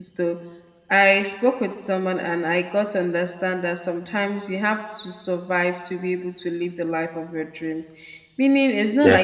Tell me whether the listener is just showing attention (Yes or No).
Yes